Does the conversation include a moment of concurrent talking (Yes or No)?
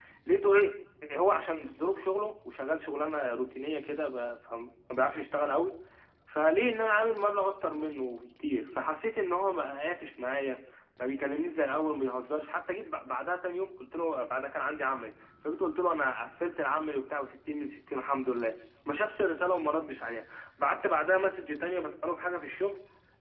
No